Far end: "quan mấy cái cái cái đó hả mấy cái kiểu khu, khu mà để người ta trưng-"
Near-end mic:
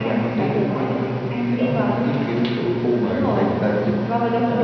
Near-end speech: present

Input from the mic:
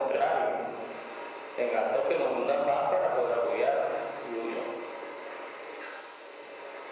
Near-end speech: none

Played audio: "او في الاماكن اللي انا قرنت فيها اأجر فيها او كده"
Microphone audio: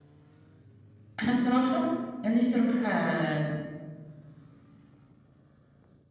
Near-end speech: present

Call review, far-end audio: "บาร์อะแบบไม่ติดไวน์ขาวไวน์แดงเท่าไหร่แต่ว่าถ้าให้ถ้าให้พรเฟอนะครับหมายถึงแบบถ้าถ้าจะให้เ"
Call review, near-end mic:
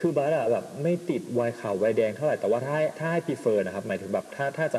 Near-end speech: none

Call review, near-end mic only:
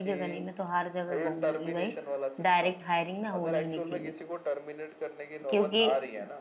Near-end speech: present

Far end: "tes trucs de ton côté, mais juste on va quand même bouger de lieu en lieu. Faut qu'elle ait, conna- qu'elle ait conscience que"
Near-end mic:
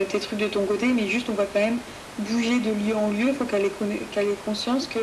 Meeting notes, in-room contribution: none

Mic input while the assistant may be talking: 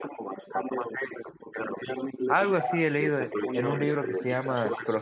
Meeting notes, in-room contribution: present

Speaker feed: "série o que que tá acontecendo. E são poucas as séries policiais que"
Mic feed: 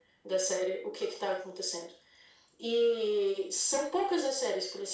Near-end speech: none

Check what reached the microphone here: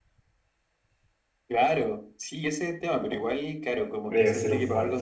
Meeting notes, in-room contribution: present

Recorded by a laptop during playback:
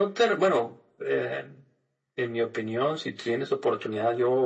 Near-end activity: none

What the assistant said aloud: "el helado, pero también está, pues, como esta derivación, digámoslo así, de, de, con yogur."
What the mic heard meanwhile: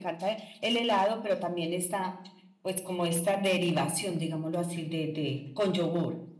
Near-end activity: none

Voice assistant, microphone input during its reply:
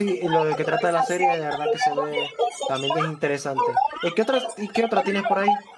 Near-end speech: present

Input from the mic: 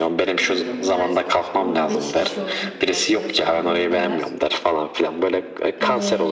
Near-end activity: present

